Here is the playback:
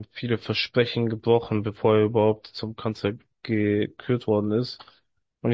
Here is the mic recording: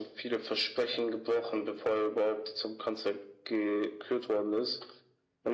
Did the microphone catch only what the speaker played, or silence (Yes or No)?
Yes